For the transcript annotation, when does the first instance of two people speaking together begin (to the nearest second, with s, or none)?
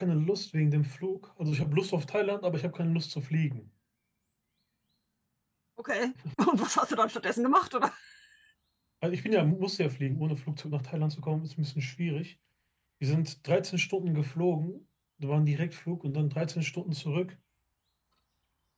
none